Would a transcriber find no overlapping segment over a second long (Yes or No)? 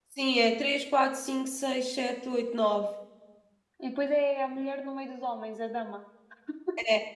Yes